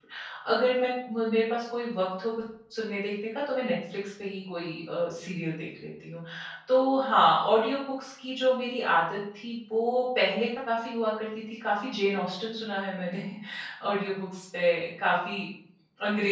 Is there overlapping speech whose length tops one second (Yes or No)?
No